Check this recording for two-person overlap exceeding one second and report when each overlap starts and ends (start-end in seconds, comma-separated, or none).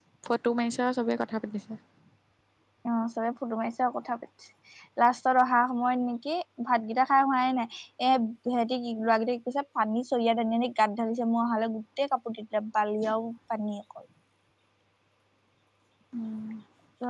none